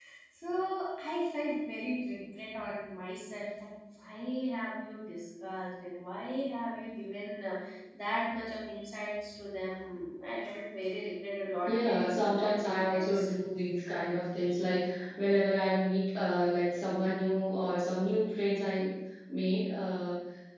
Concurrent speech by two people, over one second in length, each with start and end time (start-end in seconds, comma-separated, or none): 11.7-13.3